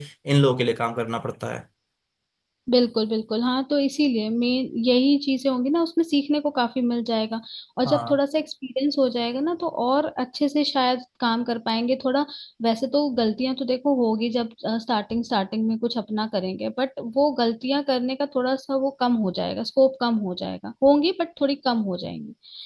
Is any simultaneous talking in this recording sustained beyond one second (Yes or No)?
No